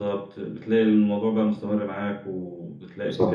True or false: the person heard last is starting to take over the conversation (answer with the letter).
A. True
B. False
B